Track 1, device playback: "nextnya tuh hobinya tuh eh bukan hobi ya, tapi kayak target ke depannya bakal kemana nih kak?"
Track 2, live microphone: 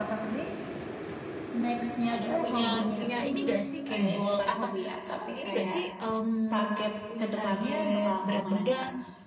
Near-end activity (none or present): present